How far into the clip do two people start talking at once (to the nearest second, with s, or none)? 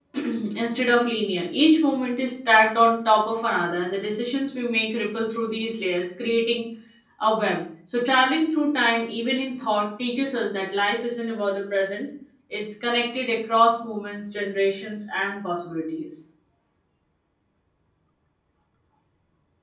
none